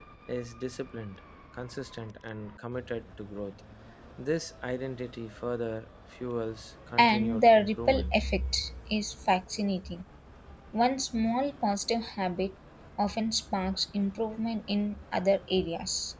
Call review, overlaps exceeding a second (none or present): present